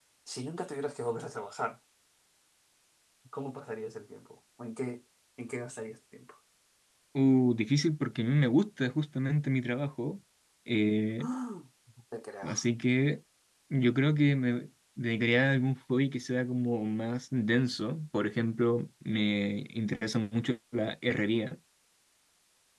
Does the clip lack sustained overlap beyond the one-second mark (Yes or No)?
Yes